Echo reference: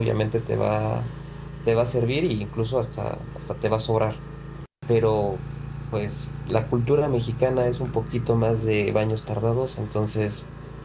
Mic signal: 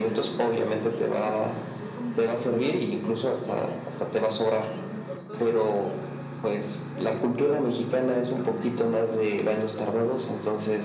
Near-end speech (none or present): present